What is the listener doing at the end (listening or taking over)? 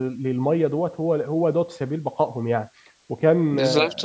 listening